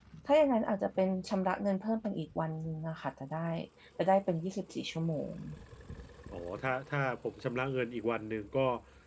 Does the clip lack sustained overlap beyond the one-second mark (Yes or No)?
Yes